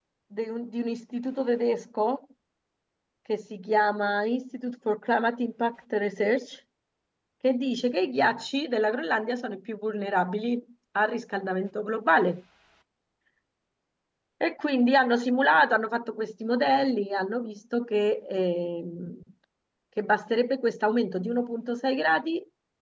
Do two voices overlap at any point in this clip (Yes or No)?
No